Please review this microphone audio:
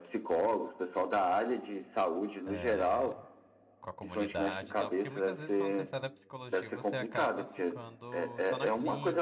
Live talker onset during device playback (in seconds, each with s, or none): 2.5 s